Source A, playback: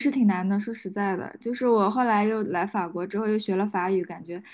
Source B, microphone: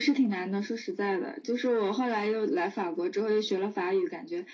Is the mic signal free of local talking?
Yes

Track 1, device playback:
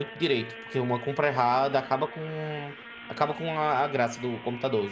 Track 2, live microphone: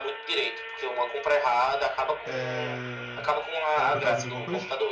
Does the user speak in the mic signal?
Yes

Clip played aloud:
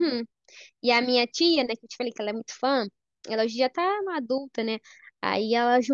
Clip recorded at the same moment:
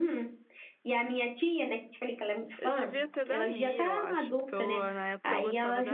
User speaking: Yes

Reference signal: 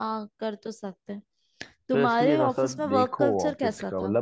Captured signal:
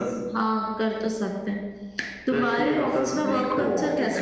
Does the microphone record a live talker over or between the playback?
No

